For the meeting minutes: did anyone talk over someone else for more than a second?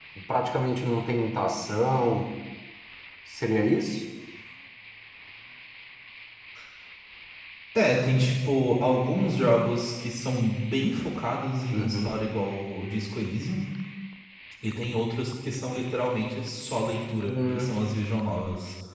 No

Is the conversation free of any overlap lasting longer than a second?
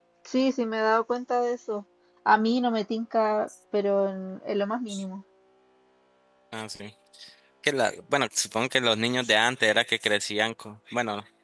Yes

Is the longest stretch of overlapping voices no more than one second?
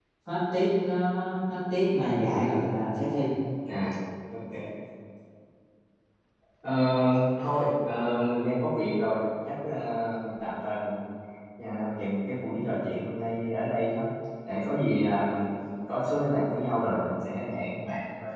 Yes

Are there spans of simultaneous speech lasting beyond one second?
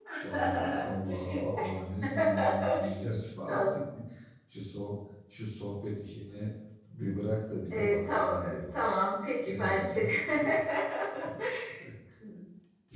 Yes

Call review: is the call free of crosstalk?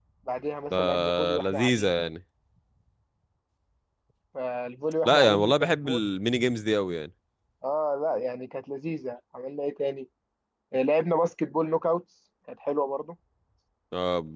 No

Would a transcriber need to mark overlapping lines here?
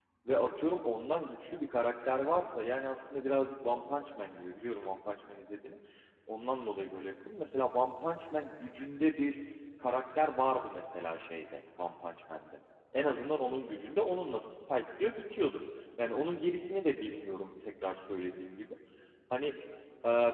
No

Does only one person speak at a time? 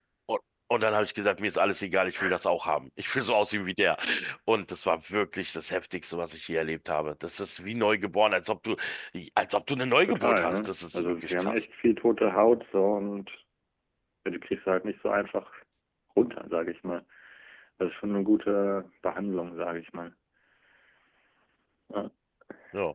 No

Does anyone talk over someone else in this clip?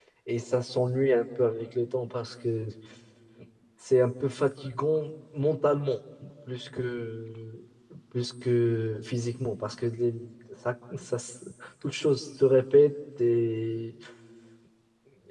No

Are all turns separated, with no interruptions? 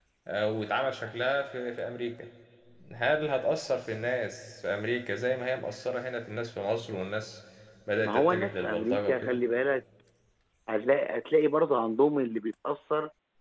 No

